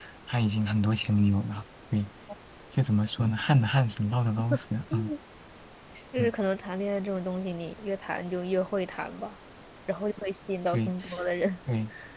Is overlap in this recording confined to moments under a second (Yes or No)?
Yes